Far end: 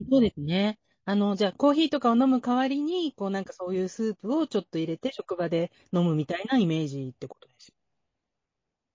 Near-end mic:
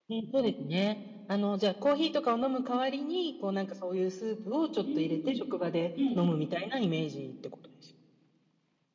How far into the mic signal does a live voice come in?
5 s

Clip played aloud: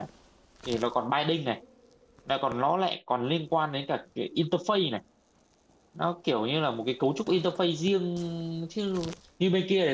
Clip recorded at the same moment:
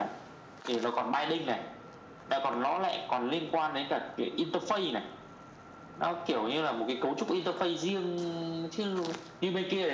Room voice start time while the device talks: none

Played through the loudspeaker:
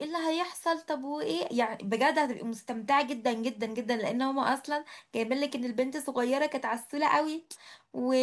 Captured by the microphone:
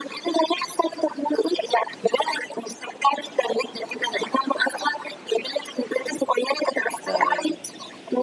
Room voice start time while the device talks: 7 s

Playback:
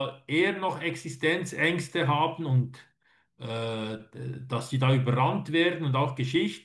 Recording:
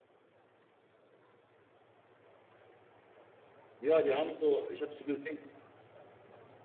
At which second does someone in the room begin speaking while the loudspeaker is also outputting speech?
4 s

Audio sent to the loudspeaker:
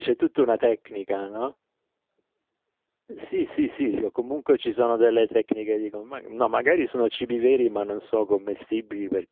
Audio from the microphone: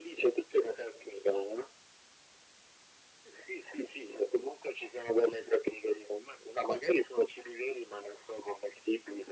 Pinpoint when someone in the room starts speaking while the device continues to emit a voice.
none

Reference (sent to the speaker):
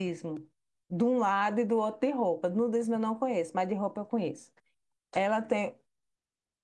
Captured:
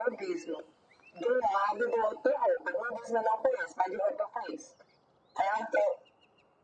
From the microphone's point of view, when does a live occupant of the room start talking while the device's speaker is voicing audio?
none

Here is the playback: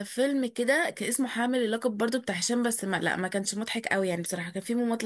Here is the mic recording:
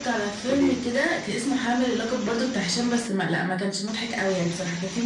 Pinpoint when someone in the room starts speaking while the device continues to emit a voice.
0 s

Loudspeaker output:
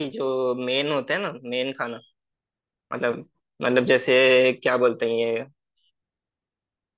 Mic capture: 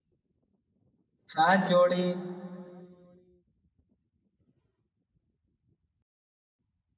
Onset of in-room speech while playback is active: 1 s

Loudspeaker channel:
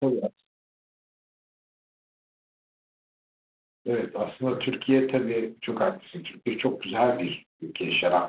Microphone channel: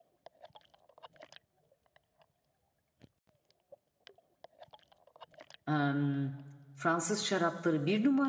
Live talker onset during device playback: 6 s

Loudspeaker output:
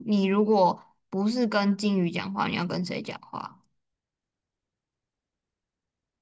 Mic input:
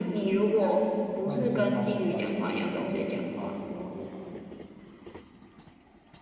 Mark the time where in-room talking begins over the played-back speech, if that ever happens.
1 s

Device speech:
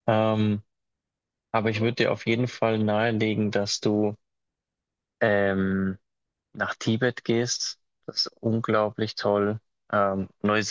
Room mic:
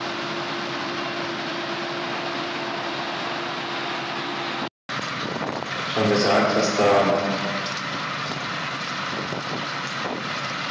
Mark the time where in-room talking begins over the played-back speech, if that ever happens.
6 s

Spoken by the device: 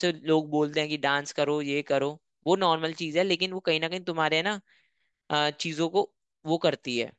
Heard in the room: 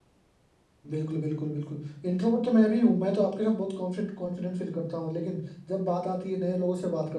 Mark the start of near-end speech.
1 s

